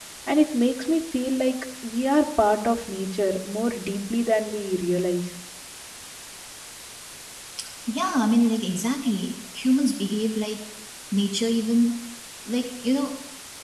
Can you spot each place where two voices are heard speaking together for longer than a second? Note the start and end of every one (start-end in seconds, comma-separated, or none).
none